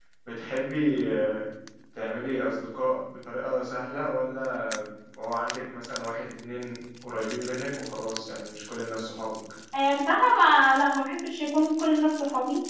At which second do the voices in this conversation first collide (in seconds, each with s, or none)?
none